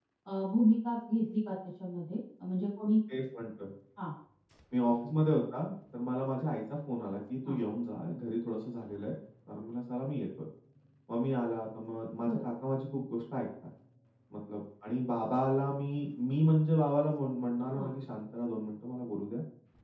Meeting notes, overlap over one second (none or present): none